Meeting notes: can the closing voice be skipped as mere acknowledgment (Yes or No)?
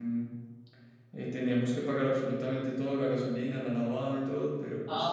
No